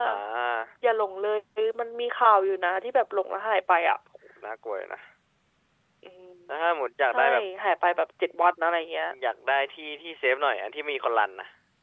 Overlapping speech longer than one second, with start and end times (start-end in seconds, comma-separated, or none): none